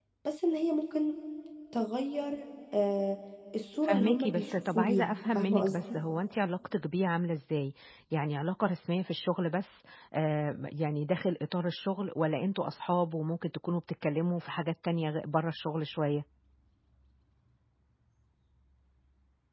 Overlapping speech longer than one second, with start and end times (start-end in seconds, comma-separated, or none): 3.8-5.8